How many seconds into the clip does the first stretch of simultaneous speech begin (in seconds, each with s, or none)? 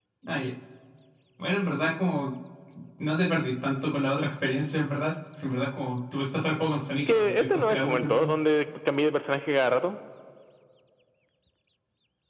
7.1 s